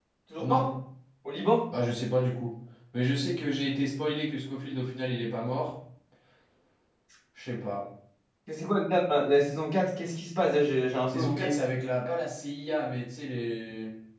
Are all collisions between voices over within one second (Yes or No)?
Yes